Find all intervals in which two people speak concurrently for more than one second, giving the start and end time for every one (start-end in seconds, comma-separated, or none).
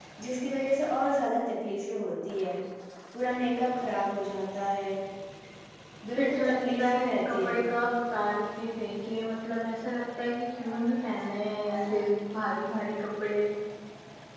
6.2-7.5